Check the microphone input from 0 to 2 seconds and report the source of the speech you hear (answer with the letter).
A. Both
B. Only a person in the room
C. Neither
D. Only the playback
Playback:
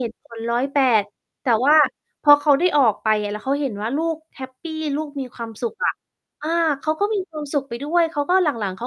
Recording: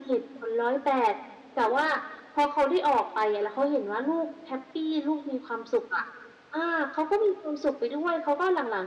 D